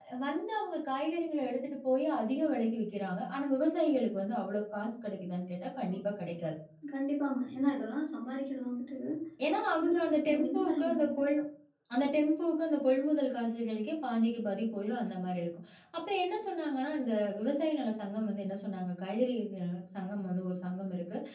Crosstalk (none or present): present